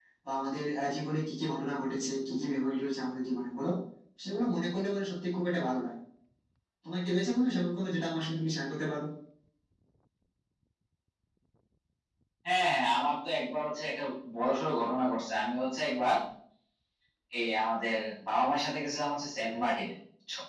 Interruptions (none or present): none